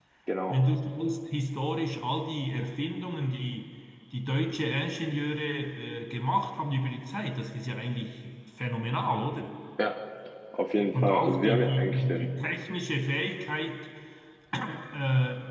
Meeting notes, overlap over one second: present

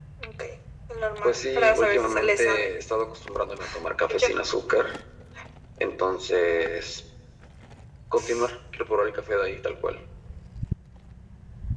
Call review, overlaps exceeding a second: present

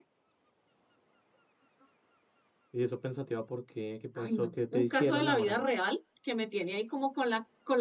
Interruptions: present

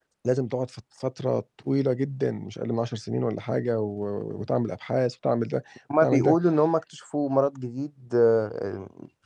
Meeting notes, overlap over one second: none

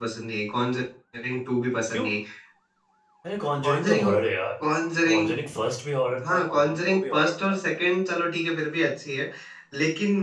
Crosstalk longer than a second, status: present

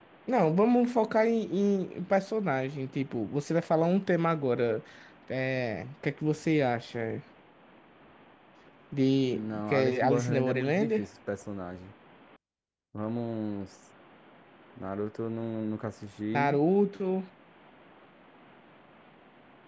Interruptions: present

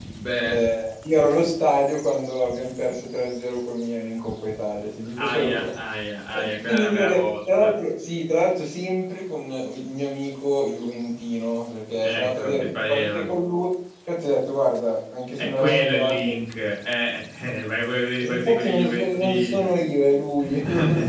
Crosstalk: present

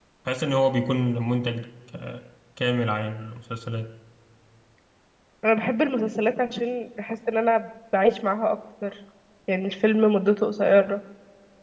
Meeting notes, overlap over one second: none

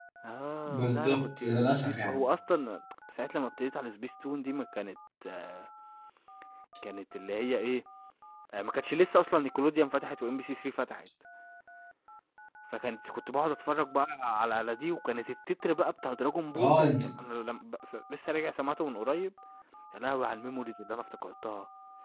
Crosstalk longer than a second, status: present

